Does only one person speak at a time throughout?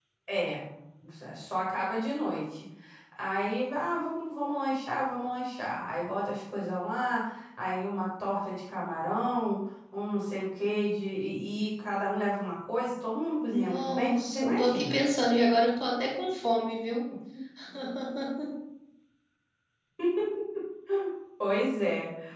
No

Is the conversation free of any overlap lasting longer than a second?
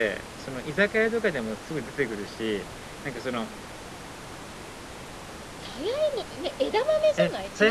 Yes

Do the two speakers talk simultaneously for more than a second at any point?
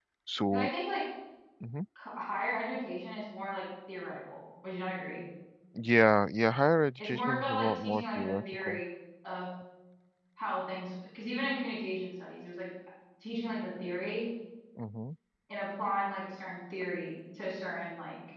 Yes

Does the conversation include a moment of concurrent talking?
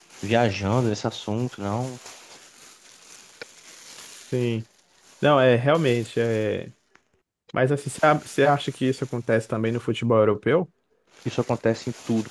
No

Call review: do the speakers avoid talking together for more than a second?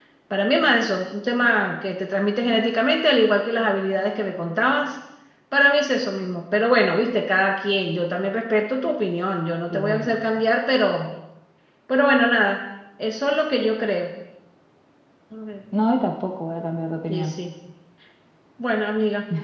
Yes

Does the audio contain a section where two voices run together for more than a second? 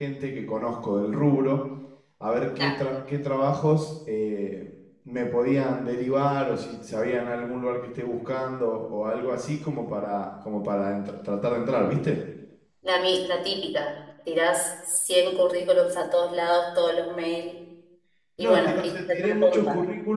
Yes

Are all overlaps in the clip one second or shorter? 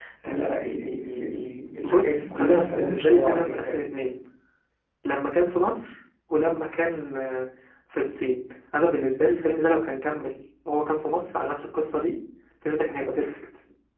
No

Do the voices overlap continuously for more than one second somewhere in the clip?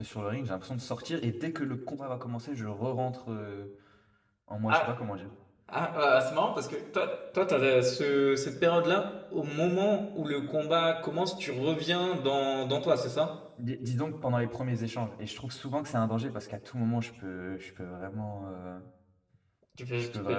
No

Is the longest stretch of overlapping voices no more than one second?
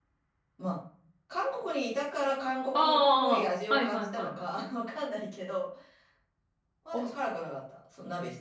No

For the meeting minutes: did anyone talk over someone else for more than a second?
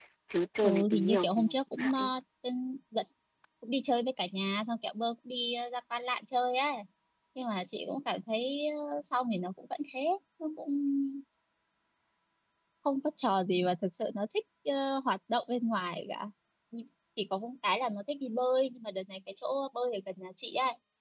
Yes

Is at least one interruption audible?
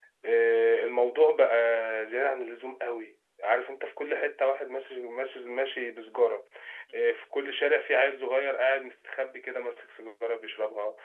No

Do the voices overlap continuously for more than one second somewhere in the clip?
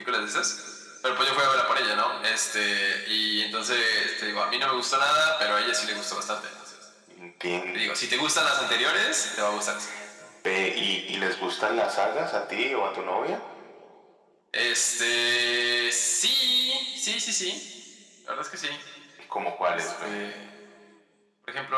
No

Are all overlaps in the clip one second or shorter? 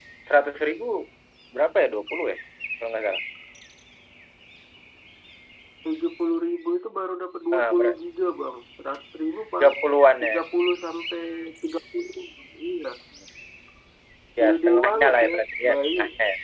No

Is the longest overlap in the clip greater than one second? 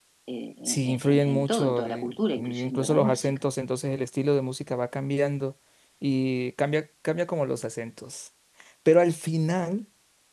Yes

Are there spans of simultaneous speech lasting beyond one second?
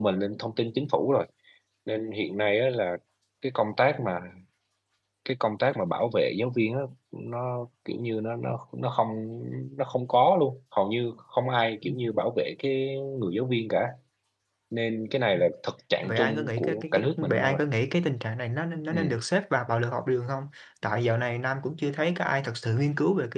Yes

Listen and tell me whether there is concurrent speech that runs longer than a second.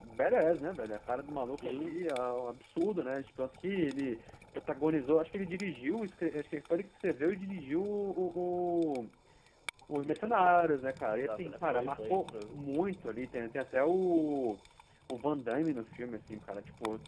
Yes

